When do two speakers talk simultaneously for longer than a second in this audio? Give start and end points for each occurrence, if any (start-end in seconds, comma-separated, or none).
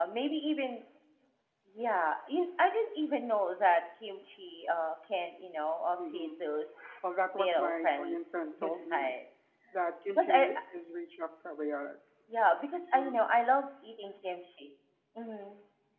7.4-9.1